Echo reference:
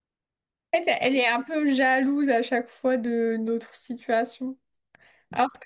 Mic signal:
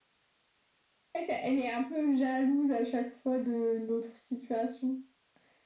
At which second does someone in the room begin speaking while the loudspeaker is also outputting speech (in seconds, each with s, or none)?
none